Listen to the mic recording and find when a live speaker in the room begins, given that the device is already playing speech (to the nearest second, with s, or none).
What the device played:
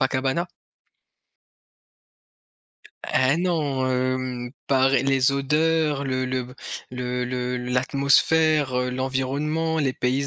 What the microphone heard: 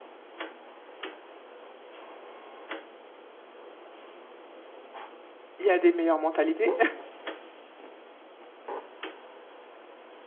6 s